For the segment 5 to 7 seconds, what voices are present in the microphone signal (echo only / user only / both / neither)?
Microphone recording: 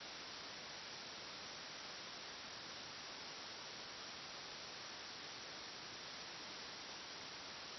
neither